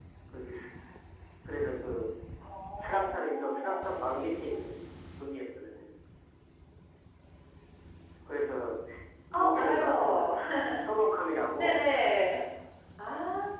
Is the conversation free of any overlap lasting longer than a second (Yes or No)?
No